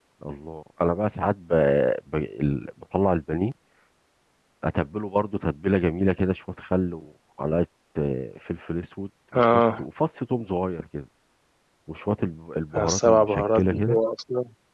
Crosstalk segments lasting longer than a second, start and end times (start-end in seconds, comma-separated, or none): 12.8-14.0